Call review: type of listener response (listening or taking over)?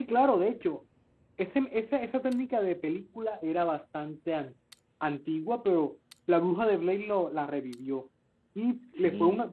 listening